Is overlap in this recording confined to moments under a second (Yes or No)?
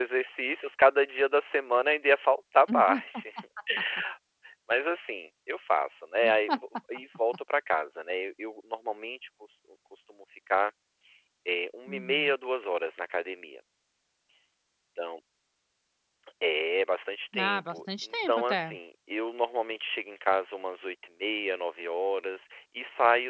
No